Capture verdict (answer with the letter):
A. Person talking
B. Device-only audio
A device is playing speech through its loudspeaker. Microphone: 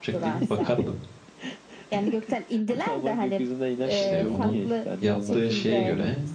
A